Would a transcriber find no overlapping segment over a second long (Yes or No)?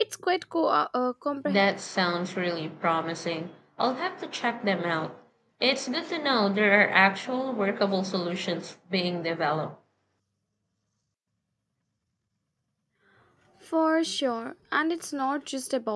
Yes